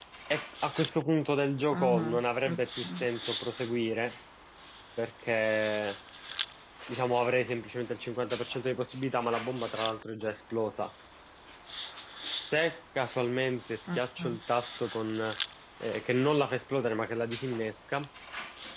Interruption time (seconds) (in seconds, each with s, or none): 1.7 s